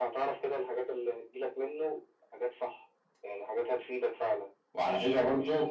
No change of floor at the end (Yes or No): No